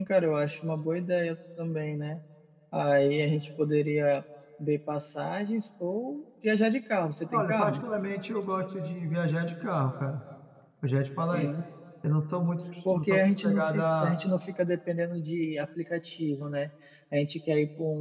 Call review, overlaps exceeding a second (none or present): present